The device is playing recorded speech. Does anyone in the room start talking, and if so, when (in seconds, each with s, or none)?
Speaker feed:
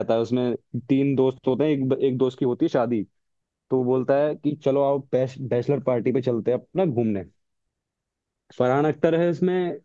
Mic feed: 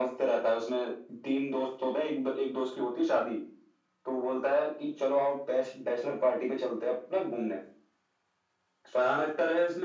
none